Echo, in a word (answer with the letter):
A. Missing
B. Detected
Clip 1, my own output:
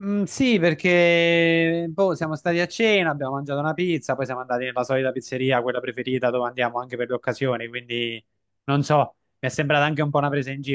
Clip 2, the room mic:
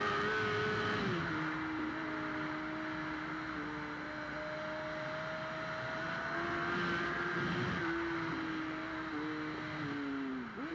A